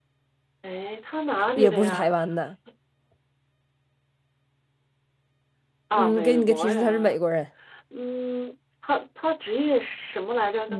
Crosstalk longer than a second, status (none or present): present